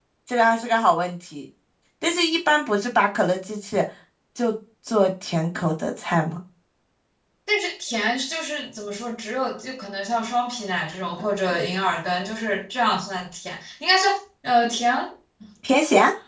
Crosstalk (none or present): none